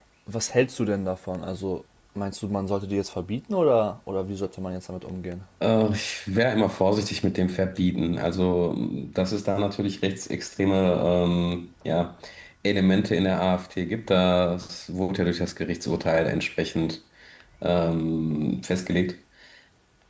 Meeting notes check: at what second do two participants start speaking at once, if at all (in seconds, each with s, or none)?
none